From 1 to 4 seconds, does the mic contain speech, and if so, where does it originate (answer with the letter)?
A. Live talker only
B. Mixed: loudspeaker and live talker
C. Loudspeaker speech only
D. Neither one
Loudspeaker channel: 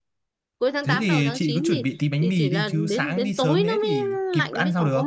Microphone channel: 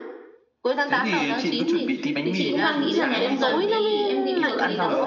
B